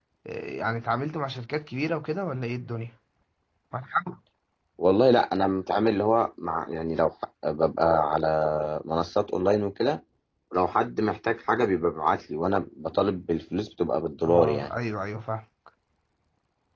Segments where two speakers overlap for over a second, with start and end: none

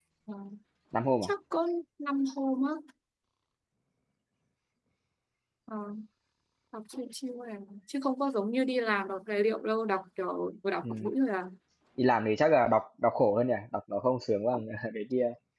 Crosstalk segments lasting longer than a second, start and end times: none

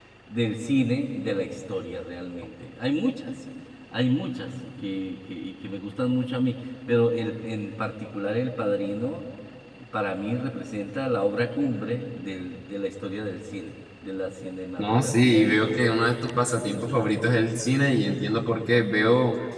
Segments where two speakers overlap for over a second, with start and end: 14.8-16.0

